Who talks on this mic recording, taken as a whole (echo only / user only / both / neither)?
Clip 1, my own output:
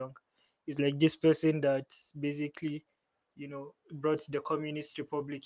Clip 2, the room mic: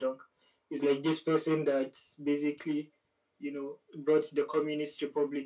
echo only